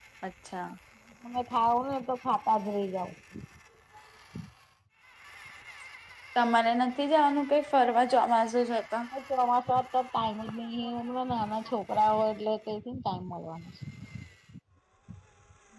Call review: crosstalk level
none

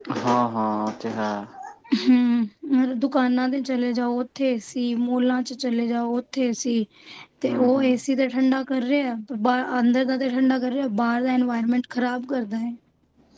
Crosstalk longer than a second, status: none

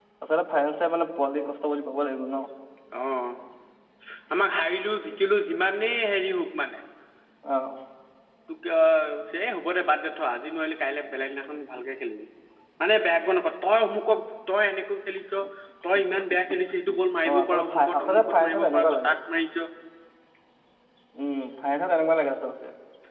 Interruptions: present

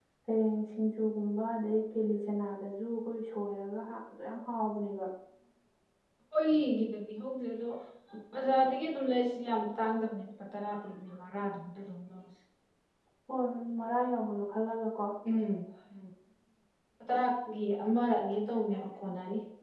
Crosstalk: none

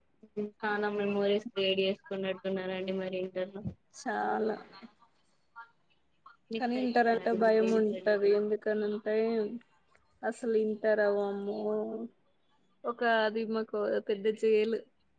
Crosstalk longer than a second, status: present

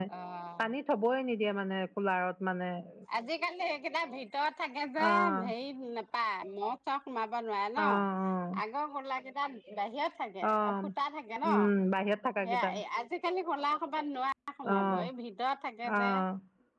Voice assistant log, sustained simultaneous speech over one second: none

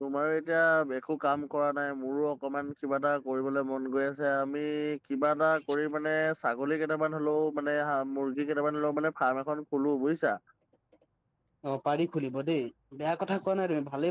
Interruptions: none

